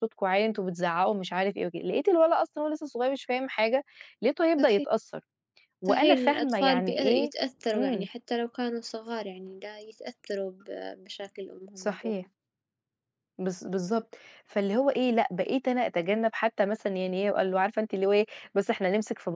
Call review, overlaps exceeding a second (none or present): present